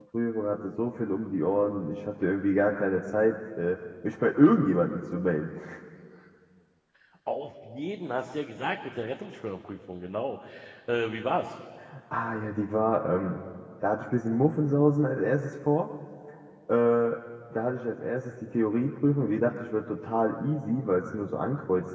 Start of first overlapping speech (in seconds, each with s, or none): none